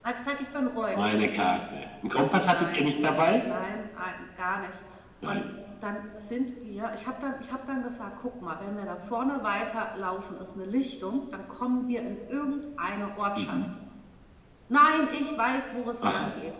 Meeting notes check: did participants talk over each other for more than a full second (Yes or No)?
No